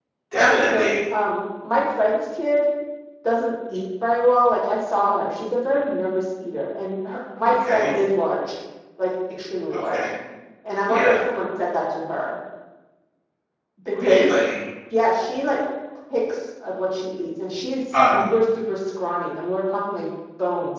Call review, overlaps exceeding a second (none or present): none